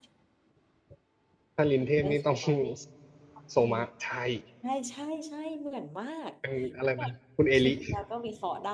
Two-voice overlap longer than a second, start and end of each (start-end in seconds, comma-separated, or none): none